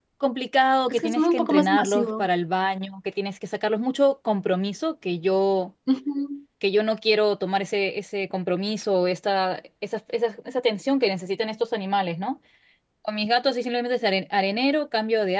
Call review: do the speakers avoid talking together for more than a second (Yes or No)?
No